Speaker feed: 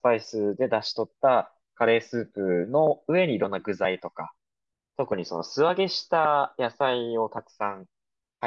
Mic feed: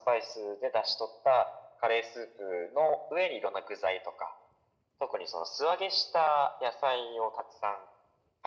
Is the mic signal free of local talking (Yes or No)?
Yes